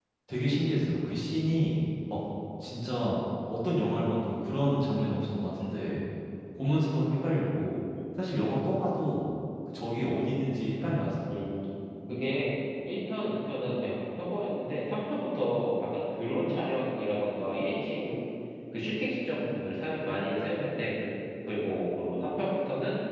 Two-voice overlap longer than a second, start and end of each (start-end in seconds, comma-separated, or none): none